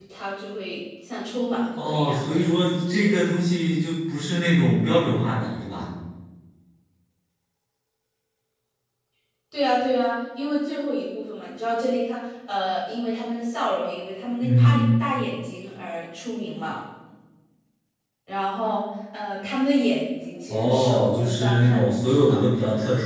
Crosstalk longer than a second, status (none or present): present